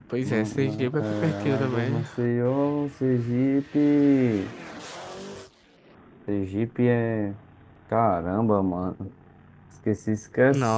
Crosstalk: present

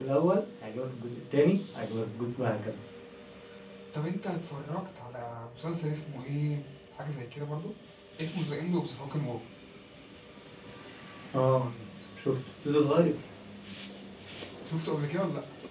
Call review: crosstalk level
none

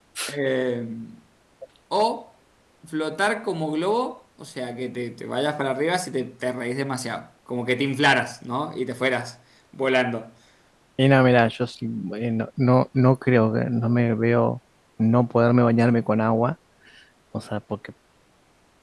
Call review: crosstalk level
none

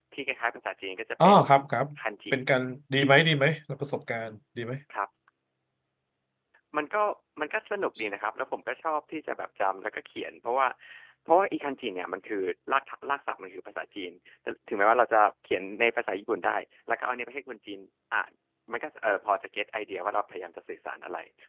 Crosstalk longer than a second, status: none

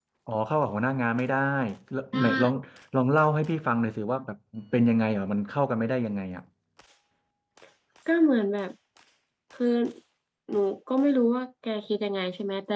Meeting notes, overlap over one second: none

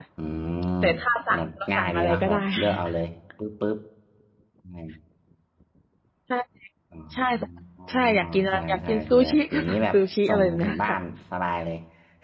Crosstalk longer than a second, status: present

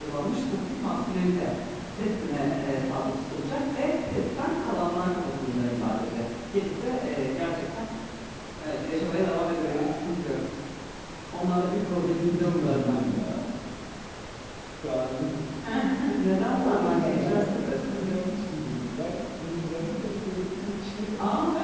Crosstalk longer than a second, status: present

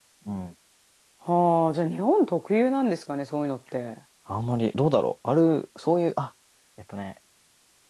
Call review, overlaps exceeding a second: none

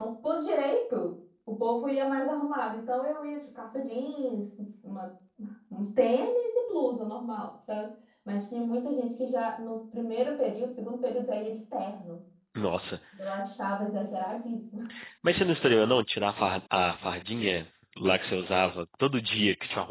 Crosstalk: none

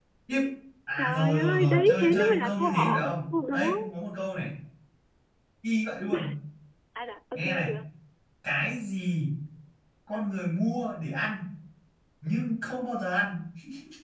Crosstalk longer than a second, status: present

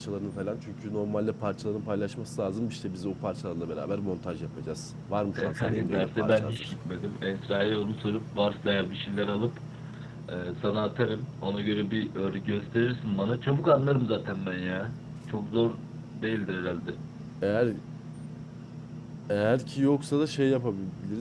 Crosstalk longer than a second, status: present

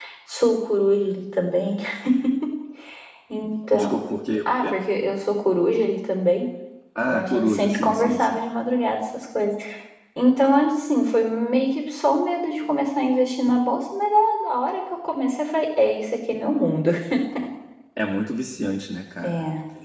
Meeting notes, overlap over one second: present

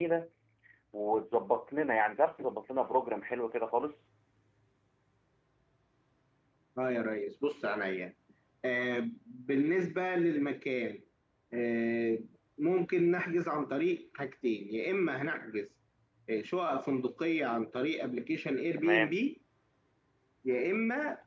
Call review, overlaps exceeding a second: none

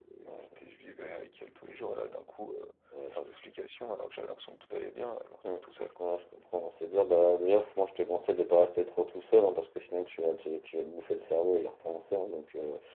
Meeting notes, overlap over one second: none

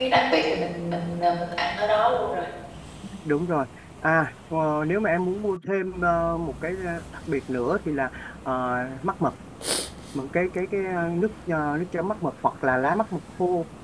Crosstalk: none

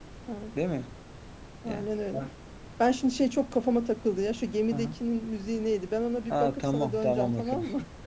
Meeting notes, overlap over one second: present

